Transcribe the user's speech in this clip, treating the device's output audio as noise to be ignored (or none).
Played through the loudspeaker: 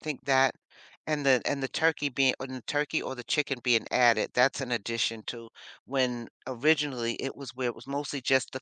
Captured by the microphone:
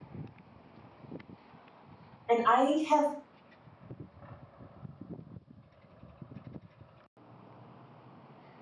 And I have